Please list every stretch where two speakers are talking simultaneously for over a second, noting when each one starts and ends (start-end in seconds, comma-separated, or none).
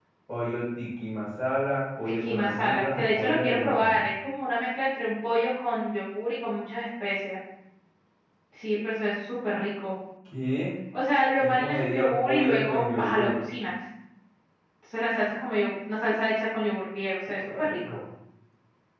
2.0-4.0, 11.4-13.3